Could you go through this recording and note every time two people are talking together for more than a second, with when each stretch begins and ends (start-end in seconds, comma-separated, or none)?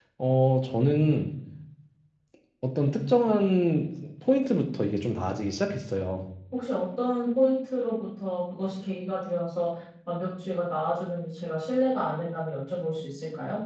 none